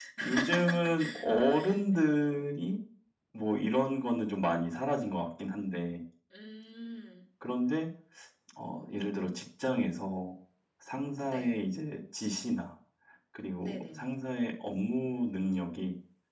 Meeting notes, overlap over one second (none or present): none